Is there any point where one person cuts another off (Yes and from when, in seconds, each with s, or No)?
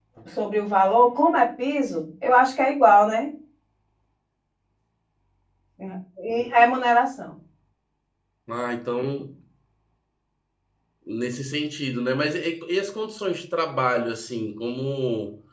No